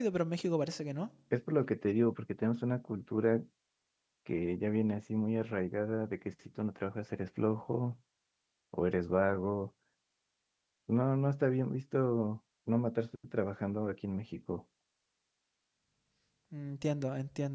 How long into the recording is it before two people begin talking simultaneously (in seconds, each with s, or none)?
none